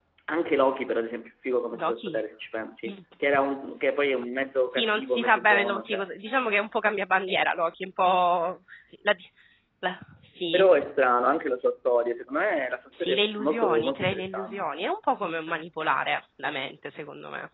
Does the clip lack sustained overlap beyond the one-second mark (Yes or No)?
No